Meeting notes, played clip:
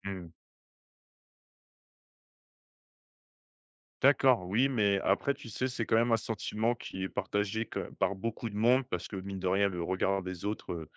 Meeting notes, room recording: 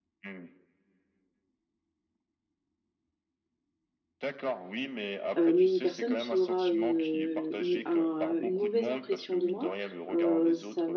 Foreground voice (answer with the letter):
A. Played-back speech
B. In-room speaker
B